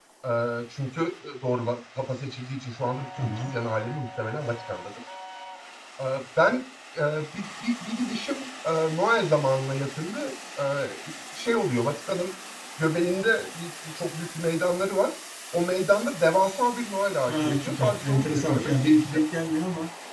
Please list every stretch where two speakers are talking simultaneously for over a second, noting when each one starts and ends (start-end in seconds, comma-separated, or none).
17.3-19.2